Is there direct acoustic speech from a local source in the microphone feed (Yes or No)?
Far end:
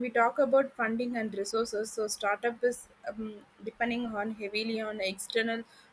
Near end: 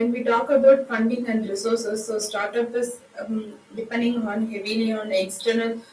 No